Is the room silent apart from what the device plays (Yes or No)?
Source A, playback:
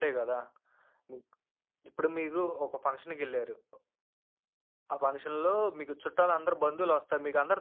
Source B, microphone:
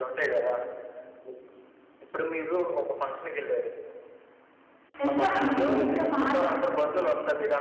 No